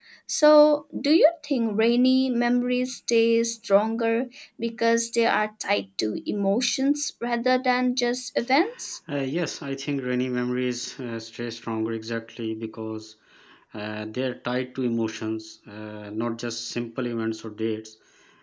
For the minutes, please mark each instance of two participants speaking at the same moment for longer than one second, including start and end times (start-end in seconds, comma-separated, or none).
none